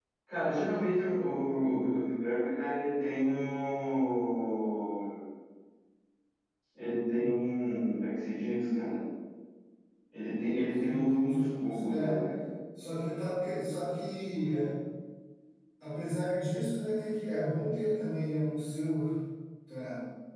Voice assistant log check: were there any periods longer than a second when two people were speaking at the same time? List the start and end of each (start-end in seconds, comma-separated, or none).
10.7-12.2